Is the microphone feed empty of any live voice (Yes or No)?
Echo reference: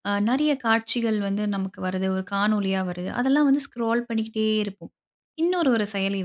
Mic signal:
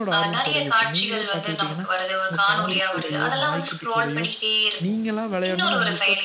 No